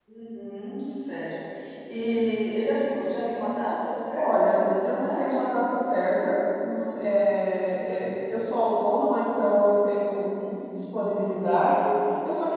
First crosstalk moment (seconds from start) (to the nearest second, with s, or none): 4 s